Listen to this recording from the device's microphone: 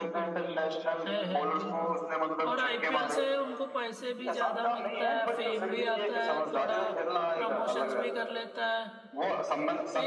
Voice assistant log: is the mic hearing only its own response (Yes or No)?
No